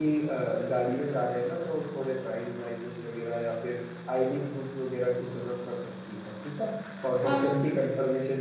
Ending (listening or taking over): listening